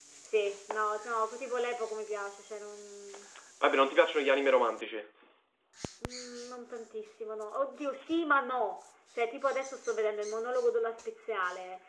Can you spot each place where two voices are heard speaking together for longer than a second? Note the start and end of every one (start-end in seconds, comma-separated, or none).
none